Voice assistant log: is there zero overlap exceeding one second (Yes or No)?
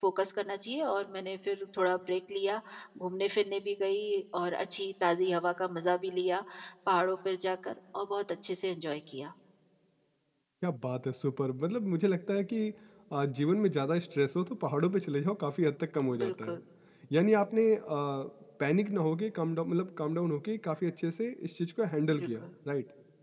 Yes